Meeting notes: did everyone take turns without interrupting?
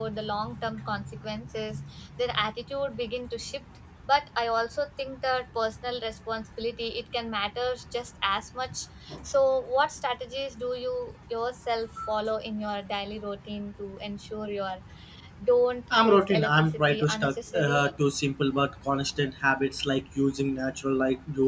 No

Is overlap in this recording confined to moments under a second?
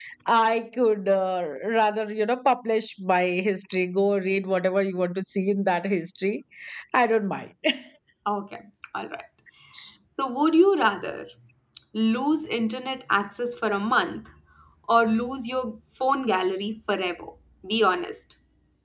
Yes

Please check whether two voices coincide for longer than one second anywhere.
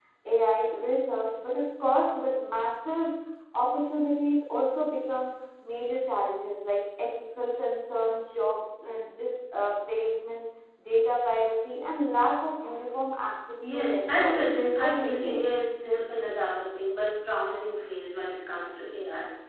Yes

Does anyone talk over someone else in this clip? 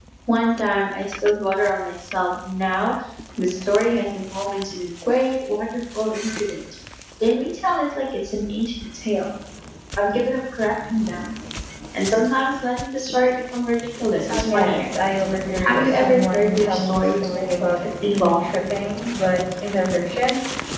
Yes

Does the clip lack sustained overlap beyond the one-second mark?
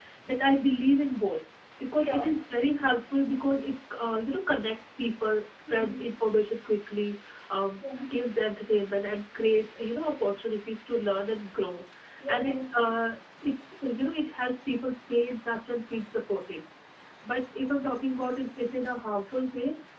Yes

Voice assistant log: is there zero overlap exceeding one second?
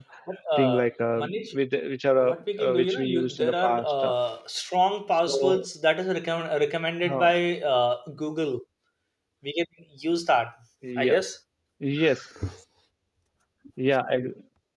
No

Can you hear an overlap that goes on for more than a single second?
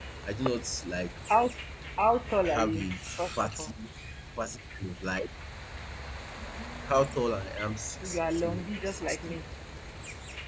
Yes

